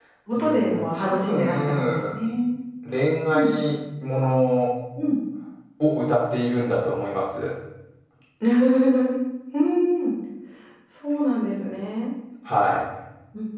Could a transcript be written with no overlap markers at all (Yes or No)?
No